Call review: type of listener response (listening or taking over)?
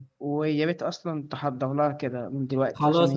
taking over